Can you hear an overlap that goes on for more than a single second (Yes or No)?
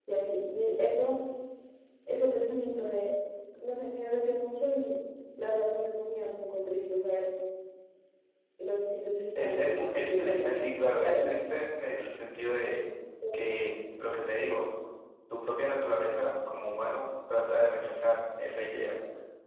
Yes